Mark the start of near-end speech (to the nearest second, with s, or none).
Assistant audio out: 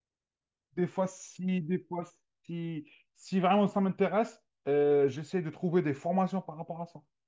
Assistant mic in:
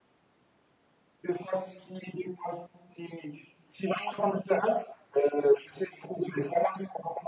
none